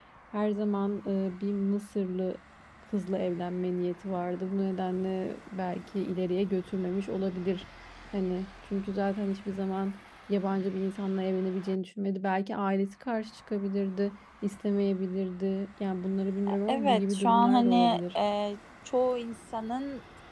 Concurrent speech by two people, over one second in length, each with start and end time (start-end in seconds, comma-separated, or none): 16.7-18.0